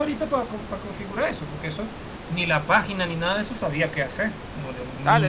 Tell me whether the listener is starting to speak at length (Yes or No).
Yes